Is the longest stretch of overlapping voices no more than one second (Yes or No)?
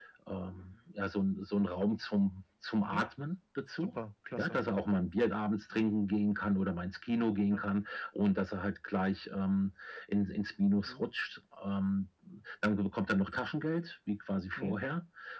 Yes